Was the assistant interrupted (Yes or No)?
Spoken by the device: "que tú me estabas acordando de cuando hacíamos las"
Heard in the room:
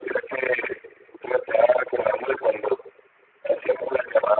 No